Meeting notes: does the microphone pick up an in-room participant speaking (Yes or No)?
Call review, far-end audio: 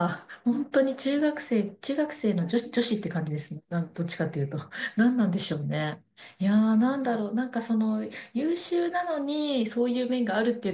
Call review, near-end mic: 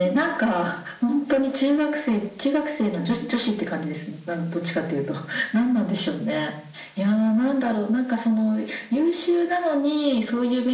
No